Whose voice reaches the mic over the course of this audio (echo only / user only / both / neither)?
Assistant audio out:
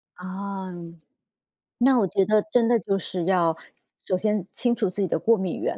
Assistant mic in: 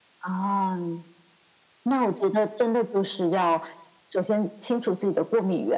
echo only